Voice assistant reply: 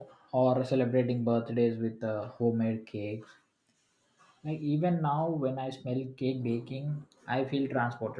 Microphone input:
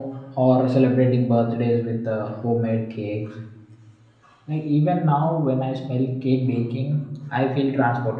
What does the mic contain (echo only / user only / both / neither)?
echo only